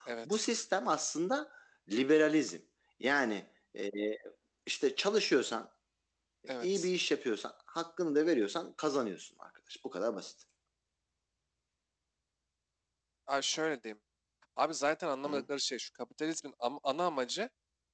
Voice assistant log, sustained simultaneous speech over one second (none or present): none